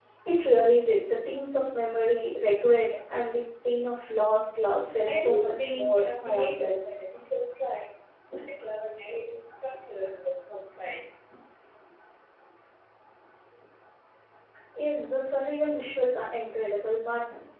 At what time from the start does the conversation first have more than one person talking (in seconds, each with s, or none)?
4.9 s